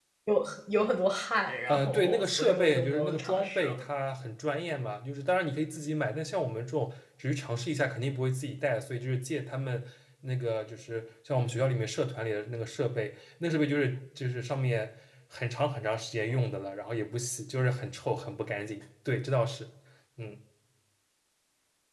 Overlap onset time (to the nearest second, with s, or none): 2 s